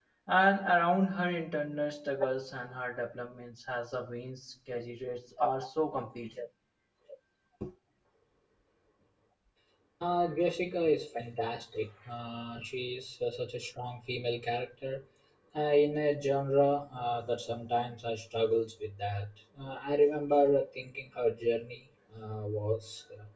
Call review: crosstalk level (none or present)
none